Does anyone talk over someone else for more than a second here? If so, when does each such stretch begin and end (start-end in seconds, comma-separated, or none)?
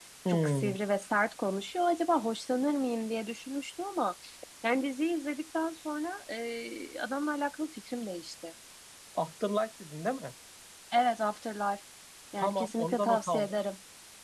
12.4-13.6